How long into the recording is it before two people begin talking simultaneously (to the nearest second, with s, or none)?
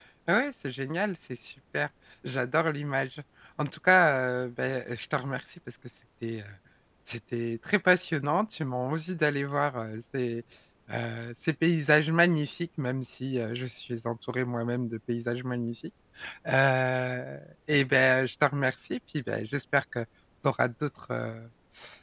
none